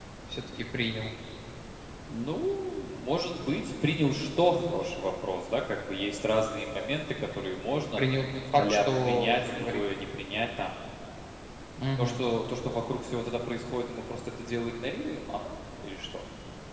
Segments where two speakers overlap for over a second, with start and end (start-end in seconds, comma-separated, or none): 8.6-9.8